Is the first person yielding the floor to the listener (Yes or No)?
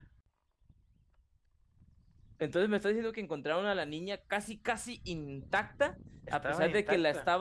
No